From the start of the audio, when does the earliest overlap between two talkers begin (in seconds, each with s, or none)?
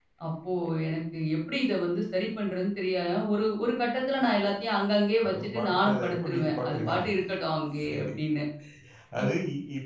5.3 s